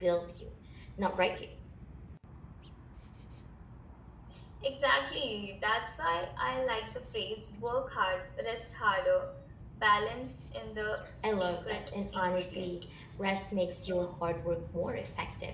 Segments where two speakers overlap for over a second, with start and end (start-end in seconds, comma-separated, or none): 11.2-12.8